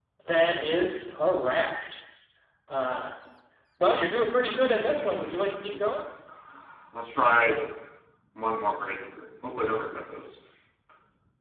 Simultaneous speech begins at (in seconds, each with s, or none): 4.3 s